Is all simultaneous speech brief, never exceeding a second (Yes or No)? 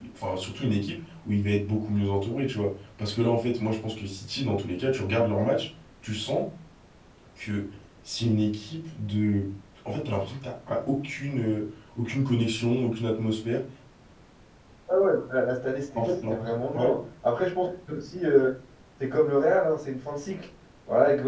Yes